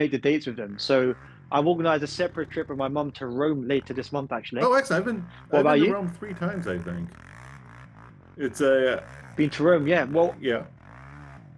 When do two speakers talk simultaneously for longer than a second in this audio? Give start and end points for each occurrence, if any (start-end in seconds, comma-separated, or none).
none